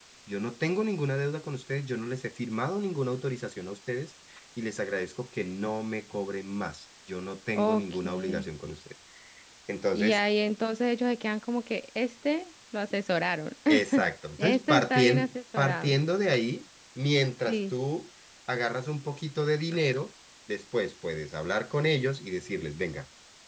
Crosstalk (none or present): present